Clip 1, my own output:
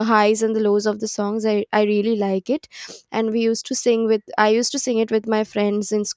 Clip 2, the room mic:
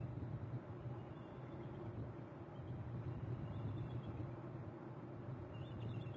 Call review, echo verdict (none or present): none